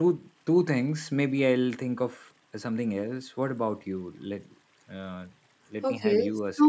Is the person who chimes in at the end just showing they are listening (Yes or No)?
No